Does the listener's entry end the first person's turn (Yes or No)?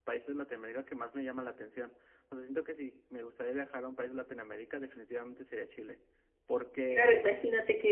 Yes